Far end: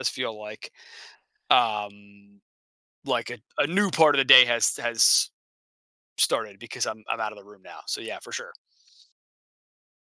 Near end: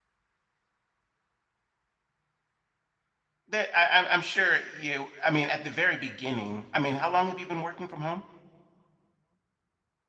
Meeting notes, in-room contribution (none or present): present